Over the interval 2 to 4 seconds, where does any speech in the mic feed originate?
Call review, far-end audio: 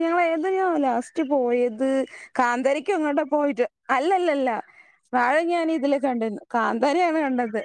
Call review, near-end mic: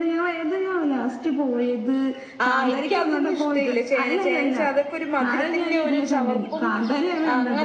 both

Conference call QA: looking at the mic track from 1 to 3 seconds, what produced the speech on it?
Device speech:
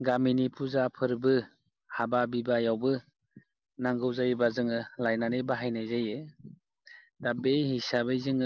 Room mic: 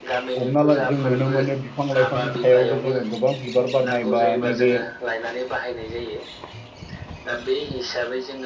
both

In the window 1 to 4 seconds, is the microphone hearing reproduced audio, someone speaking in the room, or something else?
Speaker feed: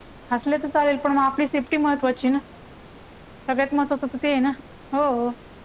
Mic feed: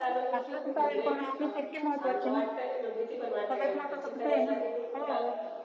both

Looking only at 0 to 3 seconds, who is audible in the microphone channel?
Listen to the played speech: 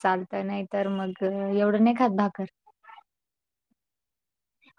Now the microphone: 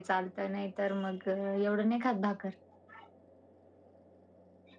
echo only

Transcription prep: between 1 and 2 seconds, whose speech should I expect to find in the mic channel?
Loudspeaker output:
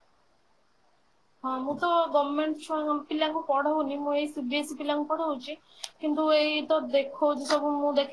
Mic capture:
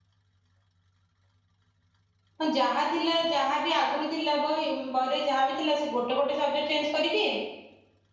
neither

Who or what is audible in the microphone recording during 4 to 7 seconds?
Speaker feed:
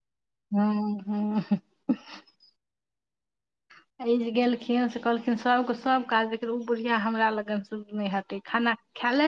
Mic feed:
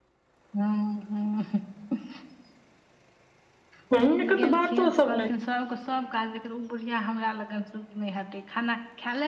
both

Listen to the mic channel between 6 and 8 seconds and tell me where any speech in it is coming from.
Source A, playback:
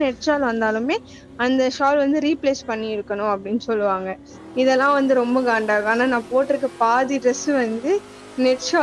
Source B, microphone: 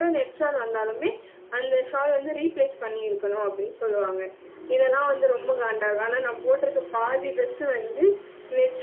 echo only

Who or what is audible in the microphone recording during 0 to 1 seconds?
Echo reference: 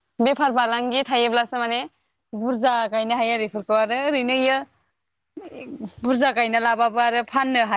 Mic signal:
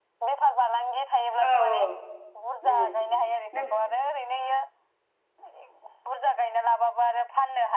echo only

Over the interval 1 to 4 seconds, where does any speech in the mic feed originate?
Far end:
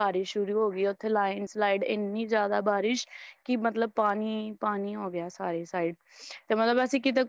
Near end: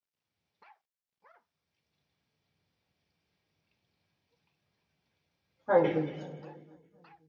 neither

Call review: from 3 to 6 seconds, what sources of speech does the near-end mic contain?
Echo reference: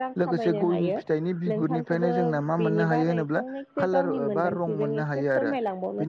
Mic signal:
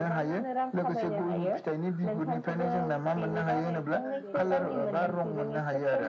both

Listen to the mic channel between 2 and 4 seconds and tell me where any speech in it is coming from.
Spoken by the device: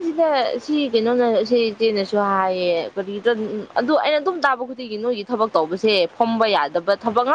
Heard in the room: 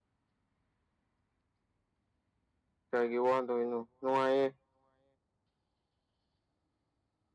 user only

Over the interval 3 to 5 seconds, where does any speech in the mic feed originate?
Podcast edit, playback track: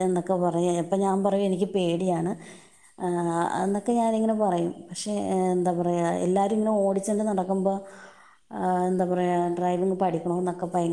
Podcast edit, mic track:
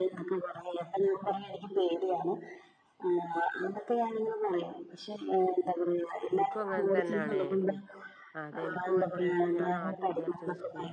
echo only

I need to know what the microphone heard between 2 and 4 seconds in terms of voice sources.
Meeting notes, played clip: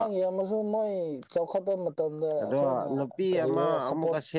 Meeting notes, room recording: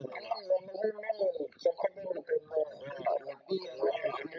echo only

